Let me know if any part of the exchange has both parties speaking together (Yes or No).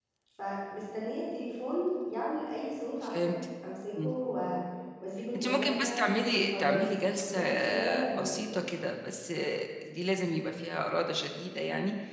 Yes